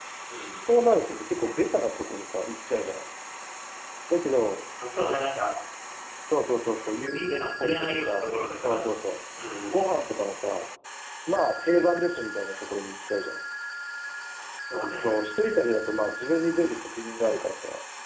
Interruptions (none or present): present